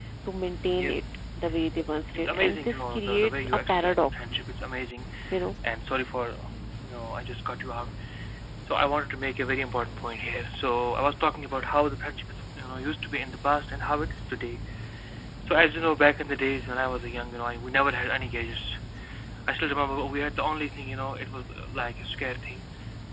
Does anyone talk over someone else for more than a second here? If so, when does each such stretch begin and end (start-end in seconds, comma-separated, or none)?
2.1-4.1